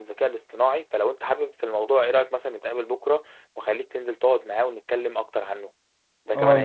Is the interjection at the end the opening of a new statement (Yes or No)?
Yes